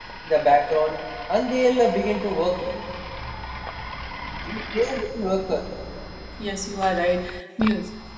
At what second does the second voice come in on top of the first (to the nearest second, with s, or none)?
none